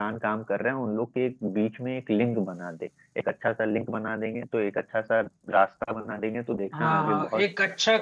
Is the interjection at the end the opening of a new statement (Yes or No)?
Yes